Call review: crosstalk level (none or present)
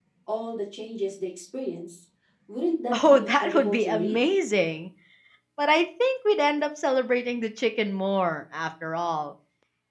present